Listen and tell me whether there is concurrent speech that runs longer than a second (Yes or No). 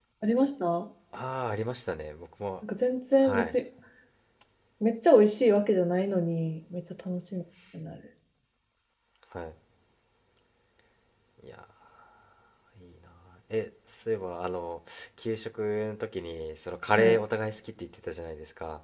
No